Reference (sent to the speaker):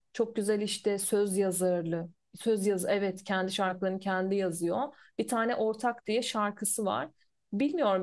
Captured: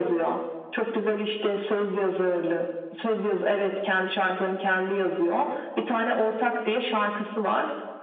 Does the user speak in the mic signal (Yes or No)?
No